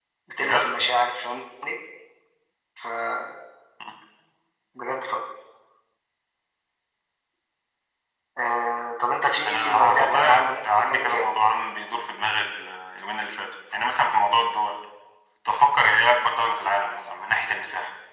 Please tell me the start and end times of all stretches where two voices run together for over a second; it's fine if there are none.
9.4-11.2

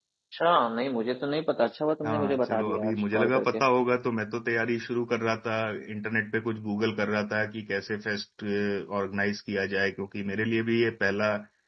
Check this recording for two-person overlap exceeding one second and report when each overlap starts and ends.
2.0-3.6

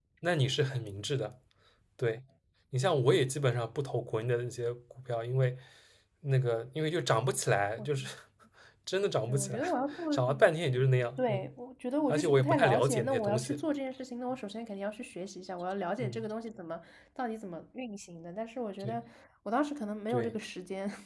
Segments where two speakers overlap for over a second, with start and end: 12.1-13.6

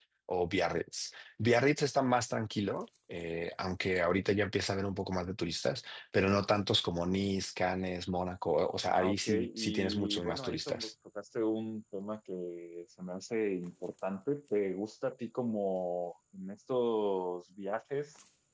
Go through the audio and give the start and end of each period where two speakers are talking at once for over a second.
8.9-10.9

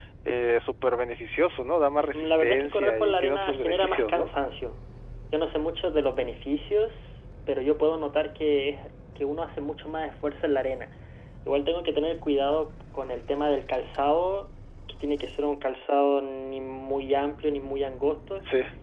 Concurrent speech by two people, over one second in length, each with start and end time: 2.1-4.3

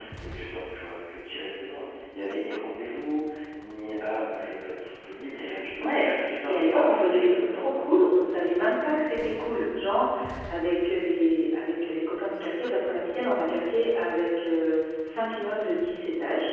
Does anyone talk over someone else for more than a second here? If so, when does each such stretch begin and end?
6.5-7.8

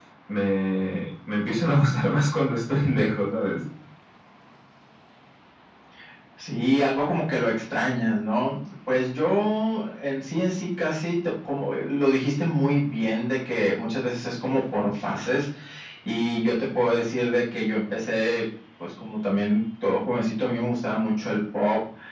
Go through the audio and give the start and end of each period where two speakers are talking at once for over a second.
none

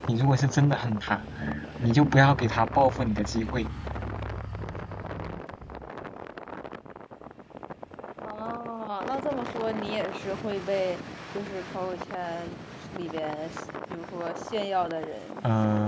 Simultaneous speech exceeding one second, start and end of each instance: none

